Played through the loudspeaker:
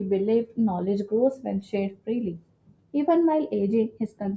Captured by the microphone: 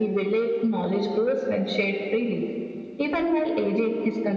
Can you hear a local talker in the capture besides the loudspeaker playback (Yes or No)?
No